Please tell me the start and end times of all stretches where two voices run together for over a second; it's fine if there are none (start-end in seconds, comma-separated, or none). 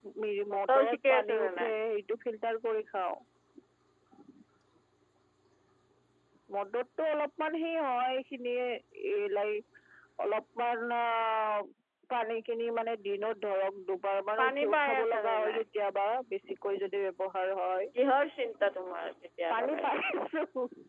0.5-1.7, 14.4-15.6